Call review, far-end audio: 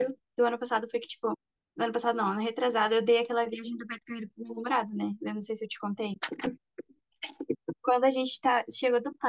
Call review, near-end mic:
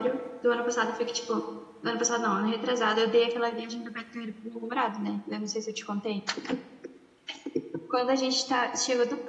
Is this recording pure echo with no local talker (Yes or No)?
Yes